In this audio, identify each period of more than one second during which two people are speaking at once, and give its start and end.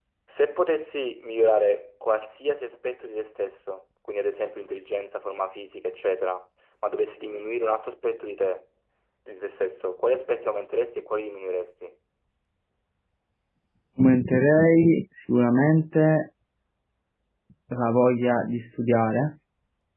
none

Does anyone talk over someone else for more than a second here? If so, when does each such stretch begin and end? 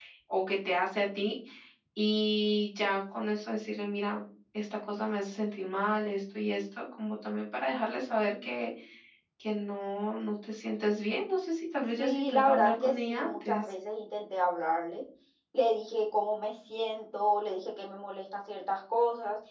12.0-13.7

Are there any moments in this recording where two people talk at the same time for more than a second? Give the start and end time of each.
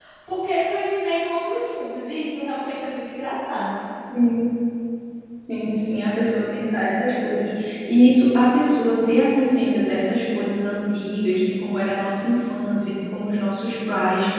none

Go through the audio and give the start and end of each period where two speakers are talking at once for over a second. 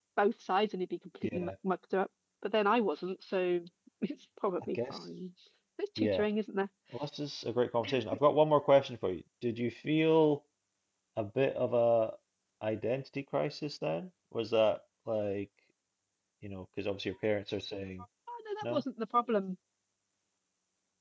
none

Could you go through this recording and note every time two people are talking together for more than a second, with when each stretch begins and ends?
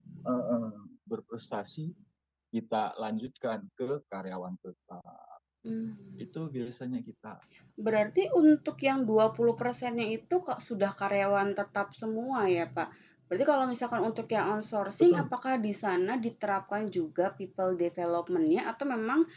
none

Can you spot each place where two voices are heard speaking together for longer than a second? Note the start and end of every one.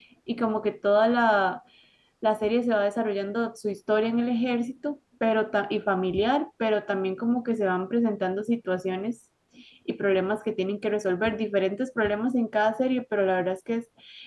none

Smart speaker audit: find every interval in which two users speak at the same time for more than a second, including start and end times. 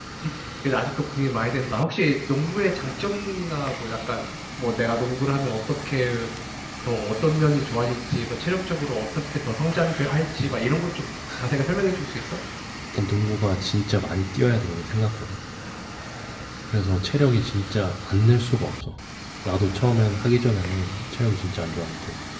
none

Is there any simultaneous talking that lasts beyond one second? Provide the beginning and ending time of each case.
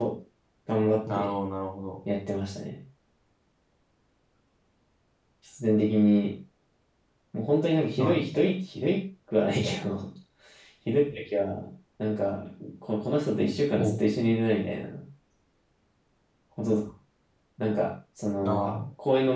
none

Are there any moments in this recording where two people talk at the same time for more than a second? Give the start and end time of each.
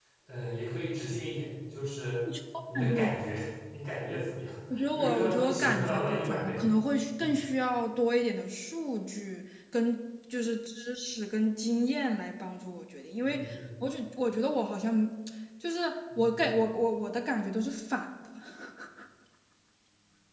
5.0-6.6

